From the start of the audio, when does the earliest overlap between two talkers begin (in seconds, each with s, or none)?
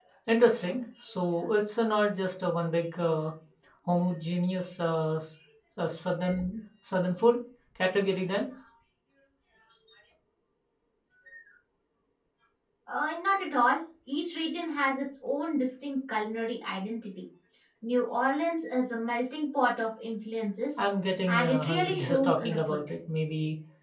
21.3 s